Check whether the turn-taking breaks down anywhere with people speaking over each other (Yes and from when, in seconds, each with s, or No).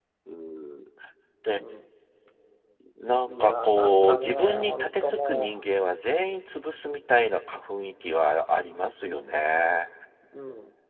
Yes, from 3.3 s